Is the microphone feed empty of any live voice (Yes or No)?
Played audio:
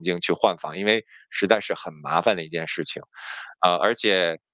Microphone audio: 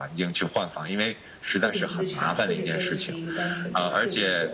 No